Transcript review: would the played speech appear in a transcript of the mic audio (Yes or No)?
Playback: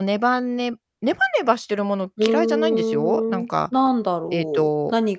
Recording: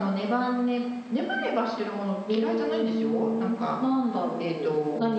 Yes